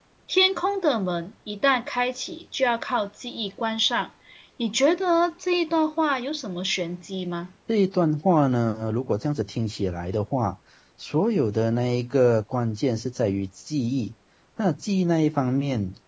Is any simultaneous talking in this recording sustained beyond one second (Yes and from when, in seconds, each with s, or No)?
No